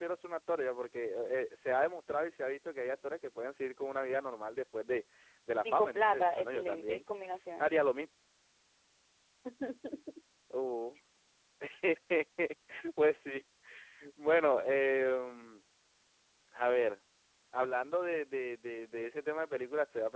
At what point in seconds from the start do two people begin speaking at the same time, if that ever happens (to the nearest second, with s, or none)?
6 s